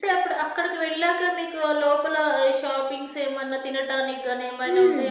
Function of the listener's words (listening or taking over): taking over